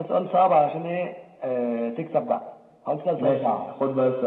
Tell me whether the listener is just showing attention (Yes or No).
No